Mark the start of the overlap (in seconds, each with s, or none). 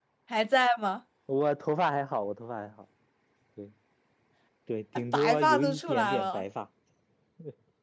5.1 s